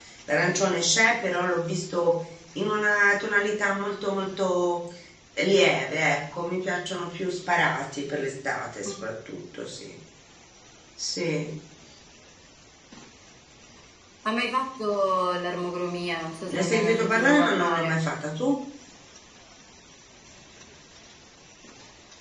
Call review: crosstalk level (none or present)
present